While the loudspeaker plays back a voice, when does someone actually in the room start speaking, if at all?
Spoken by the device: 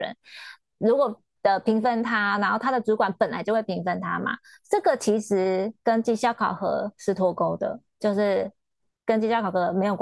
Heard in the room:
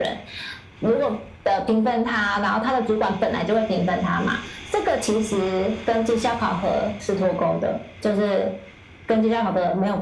none

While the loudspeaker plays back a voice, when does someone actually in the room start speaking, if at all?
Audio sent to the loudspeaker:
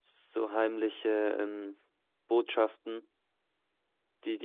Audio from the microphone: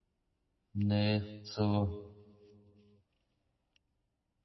0.7 s

